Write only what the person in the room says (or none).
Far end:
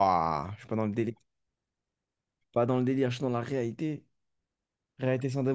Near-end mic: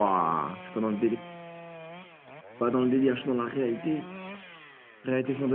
none